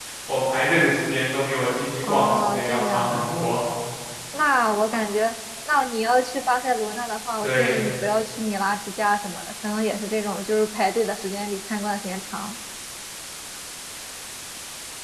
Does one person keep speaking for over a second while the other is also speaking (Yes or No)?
Yes